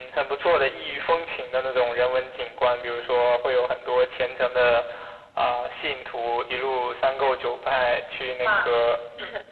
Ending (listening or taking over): listening